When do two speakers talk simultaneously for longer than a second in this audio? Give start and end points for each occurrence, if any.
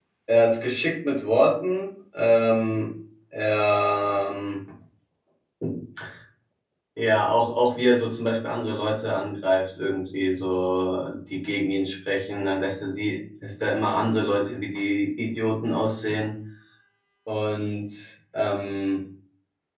none

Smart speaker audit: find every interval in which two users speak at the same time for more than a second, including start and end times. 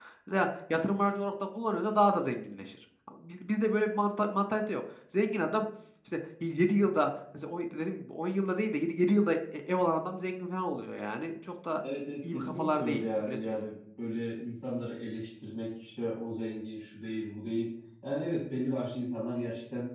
12.3-13.6

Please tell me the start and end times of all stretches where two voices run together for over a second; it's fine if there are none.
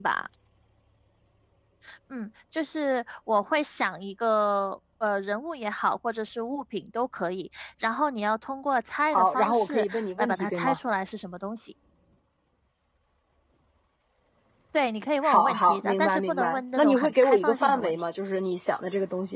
9.1-10.8, 15.2-18.0

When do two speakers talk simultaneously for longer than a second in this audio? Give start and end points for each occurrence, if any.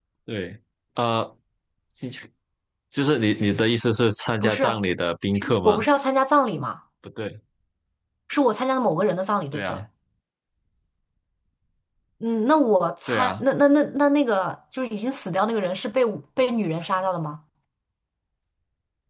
none

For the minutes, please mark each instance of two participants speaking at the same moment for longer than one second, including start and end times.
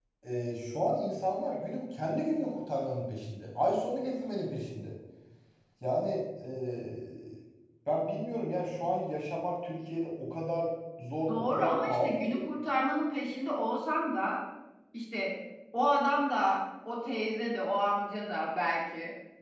11.3-12.5

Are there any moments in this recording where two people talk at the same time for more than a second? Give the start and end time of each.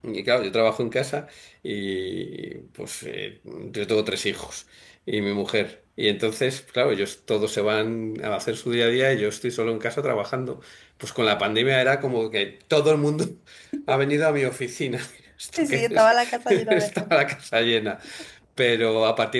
15.6-17.1

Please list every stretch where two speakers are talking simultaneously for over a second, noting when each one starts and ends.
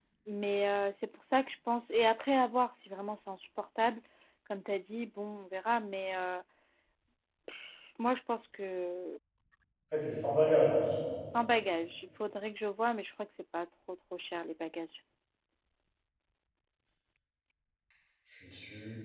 none

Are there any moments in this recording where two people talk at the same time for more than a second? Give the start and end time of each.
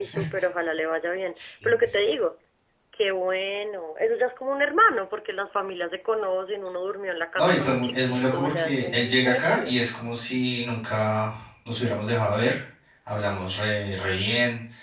7.4-9.8

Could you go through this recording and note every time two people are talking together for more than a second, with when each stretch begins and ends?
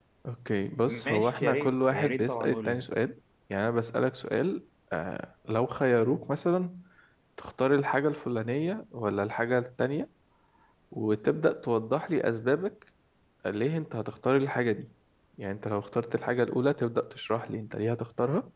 0.9-2.8

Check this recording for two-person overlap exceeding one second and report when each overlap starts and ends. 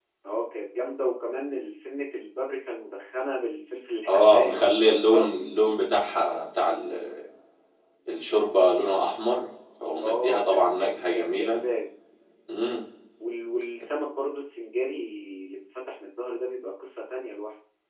4.1-5.4, 10.0-11.6

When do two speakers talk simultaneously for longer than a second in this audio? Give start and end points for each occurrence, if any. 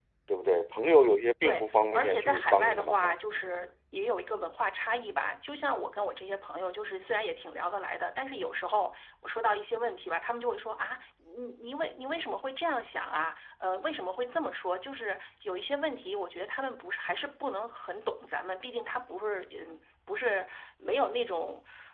1.4-3.1

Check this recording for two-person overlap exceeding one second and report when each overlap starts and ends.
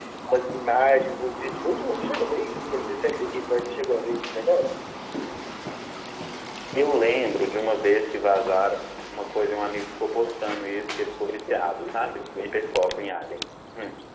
none

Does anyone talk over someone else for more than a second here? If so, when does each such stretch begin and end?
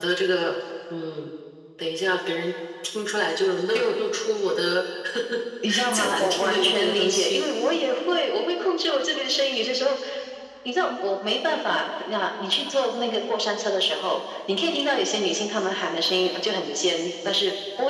5.9-7.5

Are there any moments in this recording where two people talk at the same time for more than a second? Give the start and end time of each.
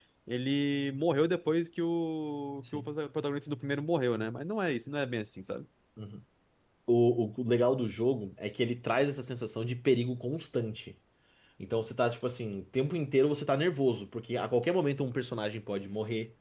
none

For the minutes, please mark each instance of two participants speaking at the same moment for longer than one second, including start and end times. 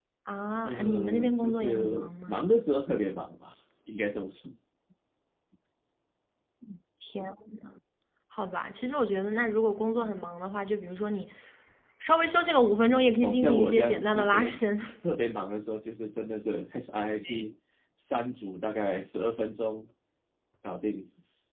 0.6-2.4, 13.2-14.6

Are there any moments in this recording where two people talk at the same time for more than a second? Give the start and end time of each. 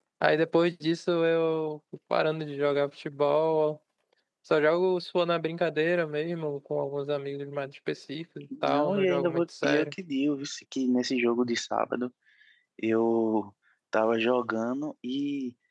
8.7-9.9

